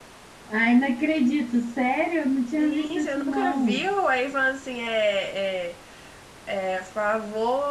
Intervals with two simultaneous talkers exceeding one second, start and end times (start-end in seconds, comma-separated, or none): 2.6-3.9